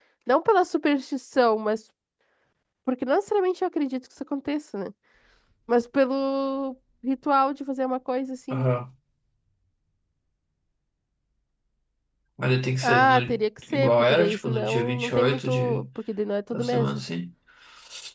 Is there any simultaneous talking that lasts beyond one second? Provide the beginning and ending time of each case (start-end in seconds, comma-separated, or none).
13.7-15.9